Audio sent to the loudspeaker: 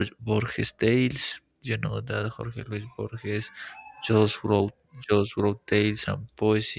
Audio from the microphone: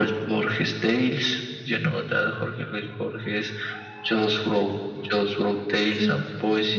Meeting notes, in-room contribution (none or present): present